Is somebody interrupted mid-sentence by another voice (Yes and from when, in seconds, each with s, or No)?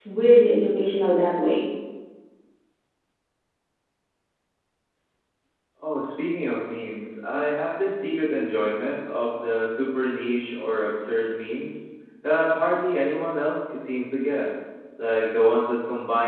No